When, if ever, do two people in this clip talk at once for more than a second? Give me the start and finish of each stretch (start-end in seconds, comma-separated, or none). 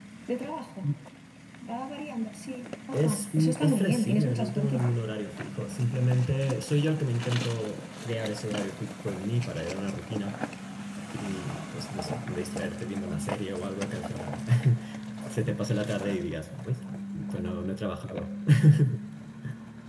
2.9-4.8